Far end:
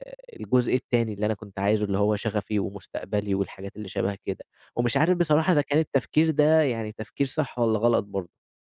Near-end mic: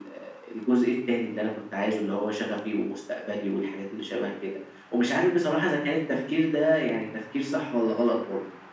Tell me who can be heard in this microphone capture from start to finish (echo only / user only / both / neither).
echo only